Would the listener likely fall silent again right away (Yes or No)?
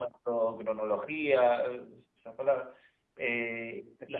No